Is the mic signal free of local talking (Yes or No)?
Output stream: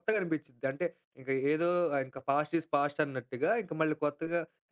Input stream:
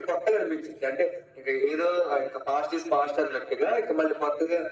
Yes